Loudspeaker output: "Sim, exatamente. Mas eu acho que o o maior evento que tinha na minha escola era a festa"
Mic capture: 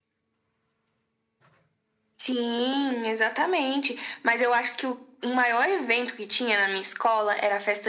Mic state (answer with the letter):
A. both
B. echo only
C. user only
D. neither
B